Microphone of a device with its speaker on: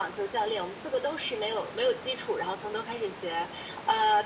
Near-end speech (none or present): none